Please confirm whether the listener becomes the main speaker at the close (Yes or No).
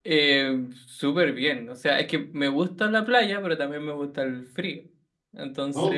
No